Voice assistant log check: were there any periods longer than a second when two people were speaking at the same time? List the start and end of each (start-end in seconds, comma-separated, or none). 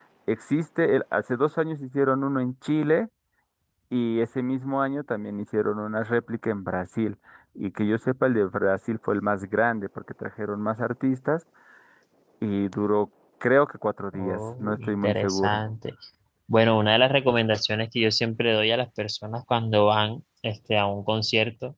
14.1-15.6